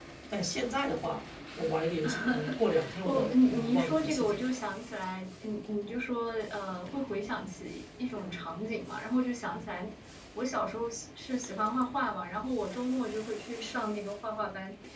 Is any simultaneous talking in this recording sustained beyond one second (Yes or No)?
Yes